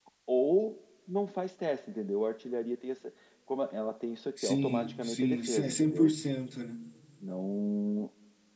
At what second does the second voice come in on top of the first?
4.4 s

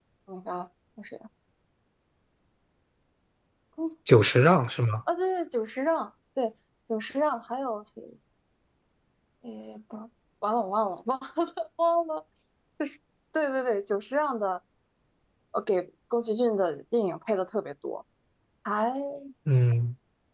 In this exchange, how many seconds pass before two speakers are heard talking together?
none

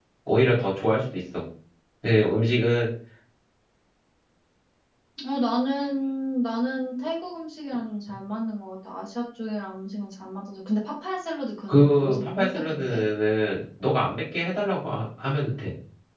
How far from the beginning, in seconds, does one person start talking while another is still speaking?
11.7 s

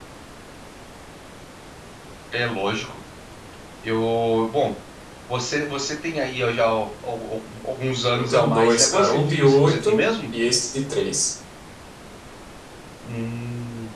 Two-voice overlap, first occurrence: 8.2 s

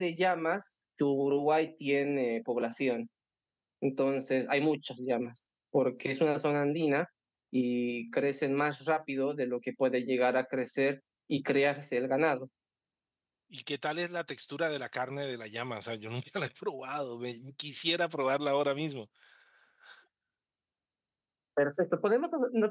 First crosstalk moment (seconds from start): none

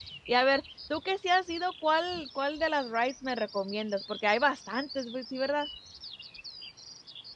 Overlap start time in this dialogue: none

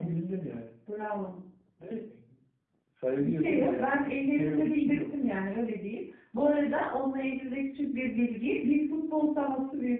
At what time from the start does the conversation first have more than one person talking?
3.2 s

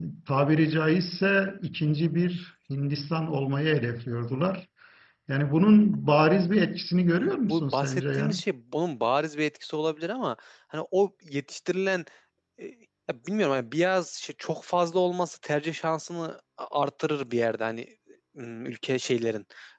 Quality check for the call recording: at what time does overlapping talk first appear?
7.2 s

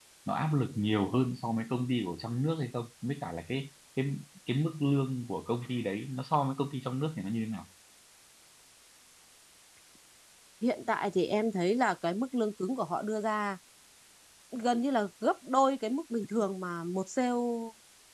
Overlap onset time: none

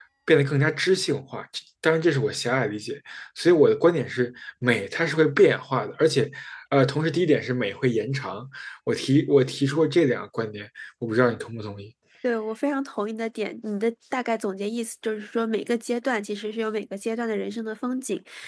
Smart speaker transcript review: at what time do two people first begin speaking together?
none

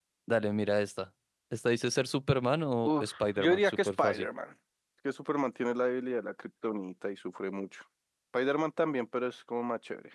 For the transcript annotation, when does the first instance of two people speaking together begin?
2.8 s

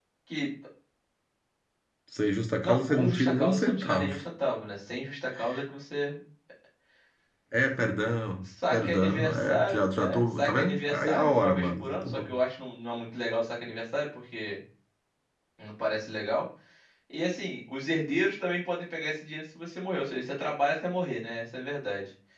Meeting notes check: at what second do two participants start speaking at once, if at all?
2.6 s

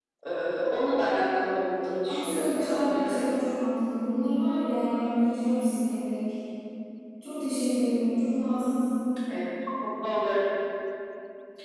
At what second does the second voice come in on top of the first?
2.1 s

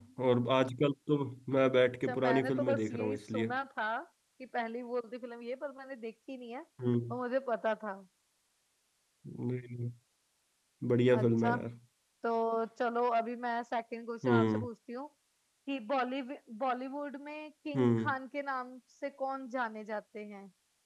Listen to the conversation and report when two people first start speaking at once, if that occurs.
2.1 s

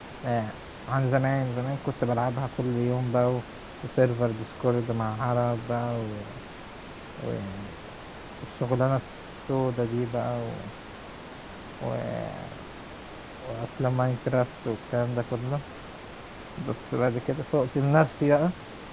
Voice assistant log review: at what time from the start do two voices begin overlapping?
none

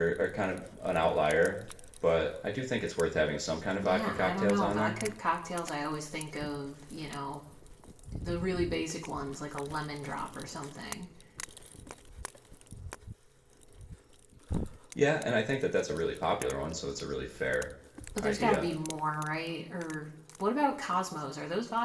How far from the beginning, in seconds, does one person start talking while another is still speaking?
3.8 s

